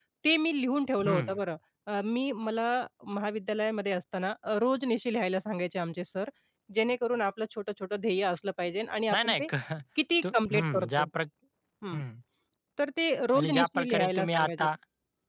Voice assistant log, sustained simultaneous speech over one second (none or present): present